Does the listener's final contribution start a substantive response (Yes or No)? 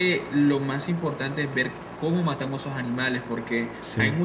No